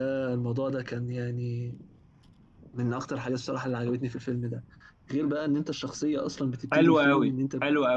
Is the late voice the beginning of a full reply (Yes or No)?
Yes